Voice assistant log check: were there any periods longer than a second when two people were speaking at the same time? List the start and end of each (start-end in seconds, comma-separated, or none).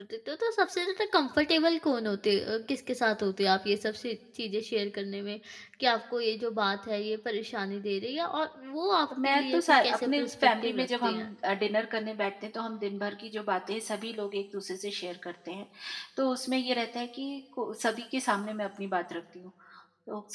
9.2-11.3